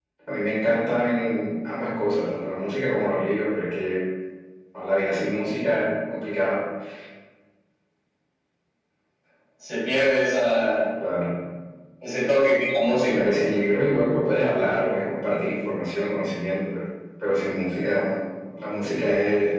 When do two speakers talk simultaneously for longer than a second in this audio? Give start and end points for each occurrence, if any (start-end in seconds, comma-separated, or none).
none